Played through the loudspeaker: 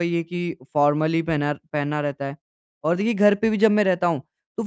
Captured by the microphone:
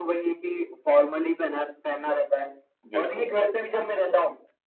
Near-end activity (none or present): present